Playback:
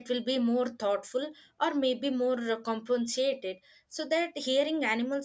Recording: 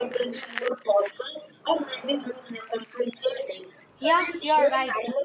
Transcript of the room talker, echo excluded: yeah you're right

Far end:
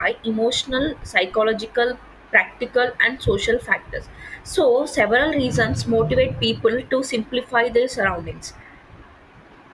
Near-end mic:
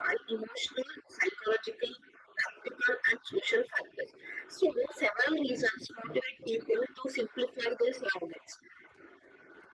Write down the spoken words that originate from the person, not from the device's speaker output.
none

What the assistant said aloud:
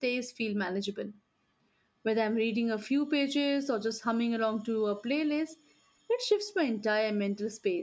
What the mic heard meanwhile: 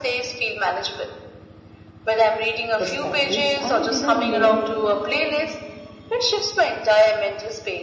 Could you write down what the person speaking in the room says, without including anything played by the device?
perspectives I didn't know

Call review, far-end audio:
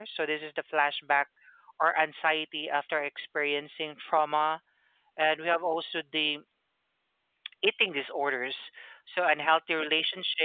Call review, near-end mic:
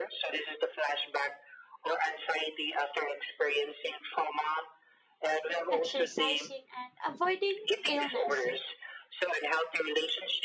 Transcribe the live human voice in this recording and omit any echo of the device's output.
exercising, and avoiding illness.

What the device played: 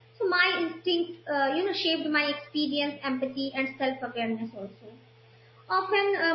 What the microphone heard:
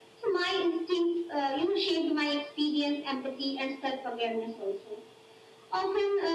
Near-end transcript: none

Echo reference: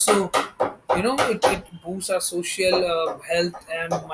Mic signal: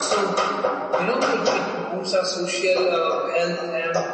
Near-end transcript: none

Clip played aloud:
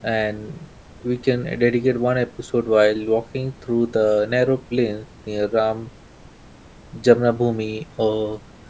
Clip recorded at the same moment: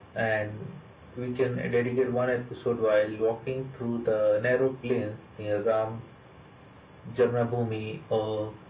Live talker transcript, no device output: none

